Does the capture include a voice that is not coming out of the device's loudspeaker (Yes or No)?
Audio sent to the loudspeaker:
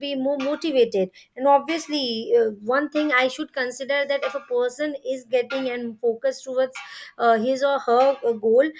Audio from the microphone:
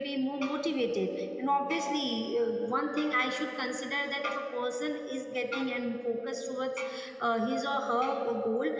No